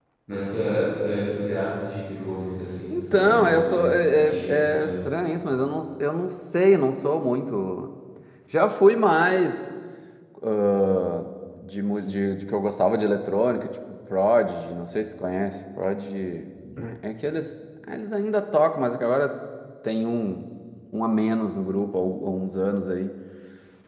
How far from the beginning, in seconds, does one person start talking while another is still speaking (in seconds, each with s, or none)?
2.9 s